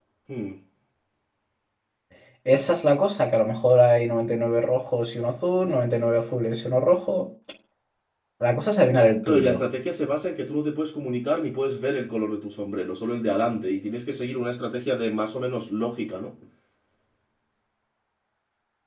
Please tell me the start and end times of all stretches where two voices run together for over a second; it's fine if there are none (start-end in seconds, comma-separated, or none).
none